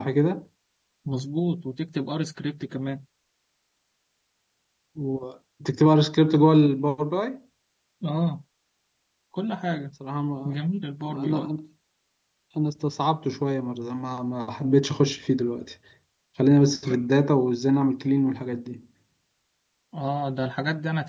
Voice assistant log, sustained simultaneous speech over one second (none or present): none